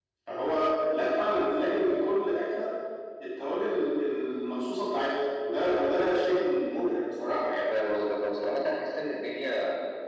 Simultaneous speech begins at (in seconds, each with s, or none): none